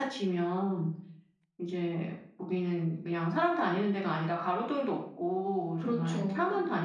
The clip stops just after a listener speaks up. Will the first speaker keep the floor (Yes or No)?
Yes